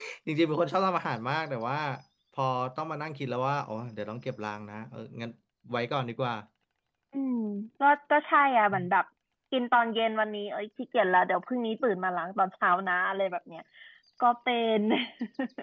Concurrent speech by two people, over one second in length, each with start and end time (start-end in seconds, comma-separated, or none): none